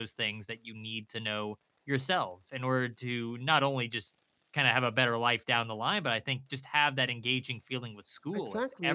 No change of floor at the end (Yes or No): No